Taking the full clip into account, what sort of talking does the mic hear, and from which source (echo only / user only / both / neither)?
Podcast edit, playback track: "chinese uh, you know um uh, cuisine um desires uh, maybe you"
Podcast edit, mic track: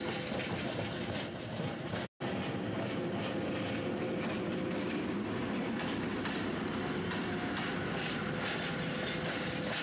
neither